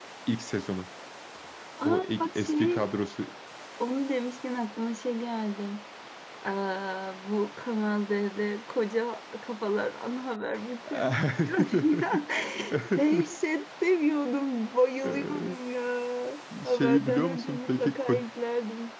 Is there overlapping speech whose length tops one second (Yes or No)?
Yes